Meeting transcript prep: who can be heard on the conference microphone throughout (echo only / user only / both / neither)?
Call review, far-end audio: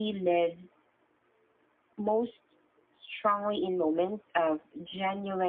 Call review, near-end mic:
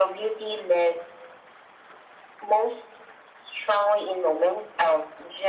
echo only